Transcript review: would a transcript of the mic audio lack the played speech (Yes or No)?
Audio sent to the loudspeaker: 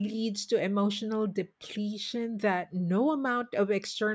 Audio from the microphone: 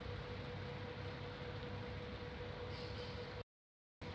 Yes